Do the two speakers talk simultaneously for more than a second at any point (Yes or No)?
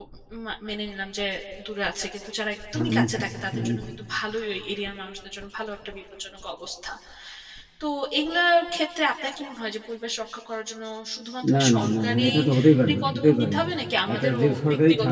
Yes